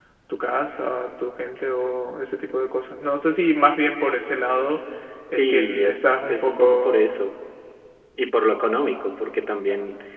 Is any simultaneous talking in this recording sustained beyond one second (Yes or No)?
Yes